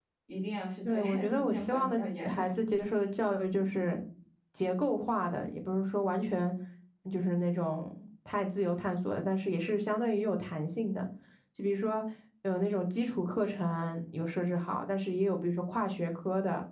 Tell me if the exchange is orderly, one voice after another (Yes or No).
No